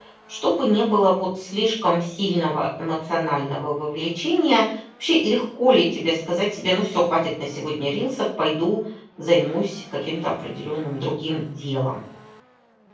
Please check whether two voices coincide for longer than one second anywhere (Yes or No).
No